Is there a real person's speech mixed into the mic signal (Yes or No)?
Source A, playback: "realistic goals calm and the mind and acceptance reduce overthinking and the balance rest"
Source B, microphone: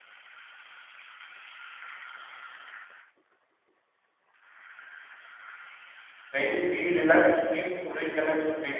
Yes